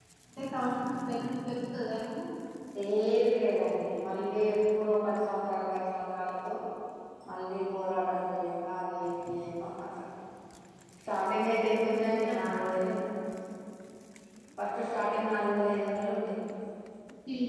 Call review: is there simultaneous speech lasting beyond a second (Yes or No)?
Yes